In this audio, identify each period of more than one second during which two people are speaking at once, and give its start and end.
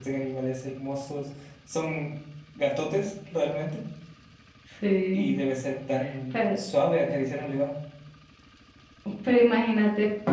none

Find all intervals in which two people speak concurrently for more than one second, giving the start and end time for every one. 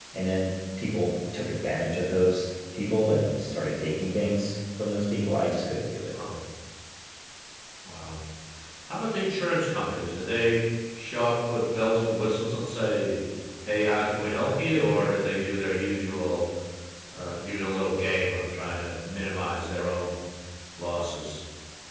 none

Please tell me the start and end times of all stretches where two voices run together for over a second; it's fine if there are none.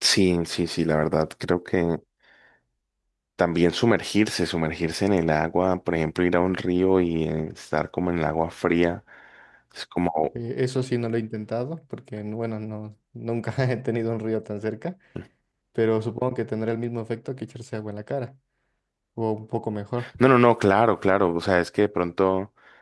none

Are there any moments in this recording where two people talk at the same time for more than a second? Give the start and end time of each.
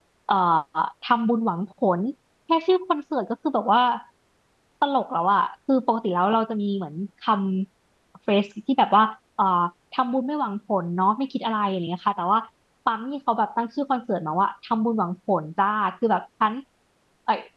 none

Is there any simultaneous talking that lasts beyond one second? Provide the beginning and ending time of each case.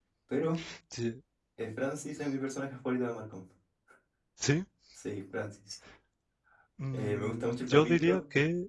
6.9-8.2

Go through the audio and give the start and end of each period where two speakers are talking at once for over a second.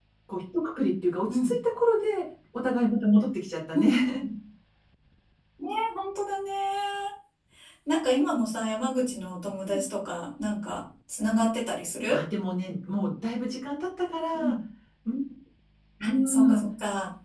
none

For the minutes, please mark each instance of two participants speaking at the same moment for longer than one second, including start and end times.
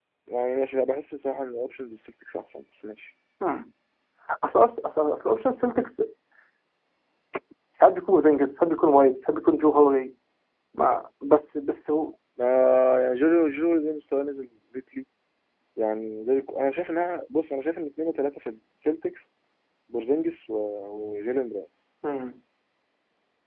none

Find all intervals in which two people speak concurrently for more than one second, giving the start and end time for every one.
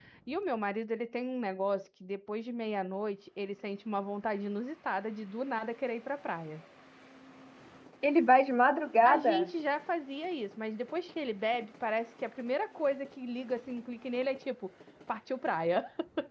none

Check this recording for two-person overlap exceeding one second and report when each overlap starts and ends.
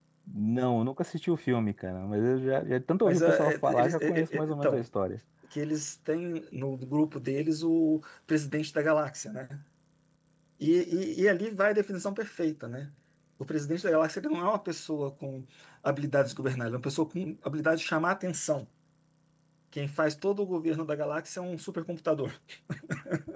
3.0-4.8

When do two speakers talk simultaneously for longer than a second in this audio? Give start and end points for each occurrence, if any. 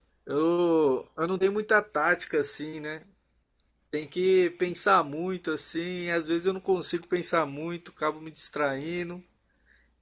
none

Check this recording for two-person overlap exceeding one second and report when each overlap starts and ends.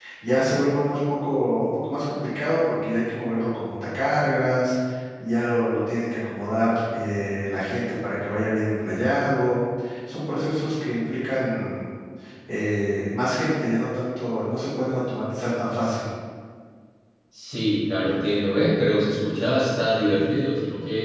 none

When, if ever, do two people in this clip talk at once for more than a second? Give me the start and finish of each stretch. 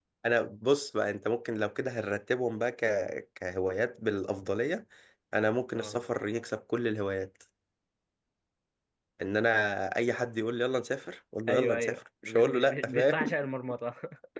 11.5-13.3

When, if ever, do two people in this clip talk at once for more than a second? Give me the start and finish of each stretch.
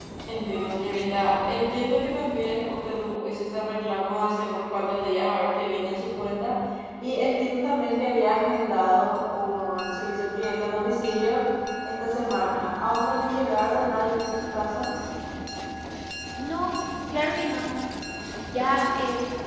none

